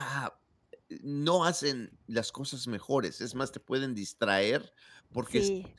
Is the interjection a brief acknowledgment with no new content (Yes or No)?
Yes